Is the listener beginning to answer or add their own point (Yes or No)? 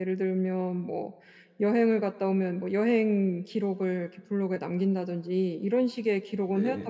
No